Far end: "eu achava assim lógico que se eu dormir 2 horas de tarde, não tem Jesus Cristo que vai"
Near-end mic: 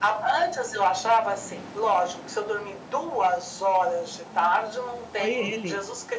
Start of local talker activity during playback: 5.1 s

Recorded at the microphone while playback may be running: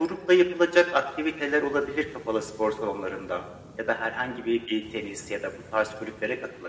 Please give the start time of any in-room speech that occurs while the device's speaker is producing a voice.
none

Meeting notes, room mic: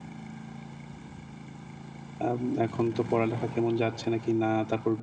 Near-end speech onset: 2.2 s

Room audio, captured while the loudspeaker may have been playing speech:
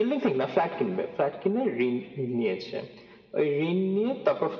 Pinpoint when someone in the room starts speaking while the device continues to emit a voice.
none

